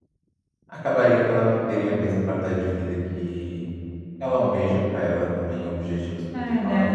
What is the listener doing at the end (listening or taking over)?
taking over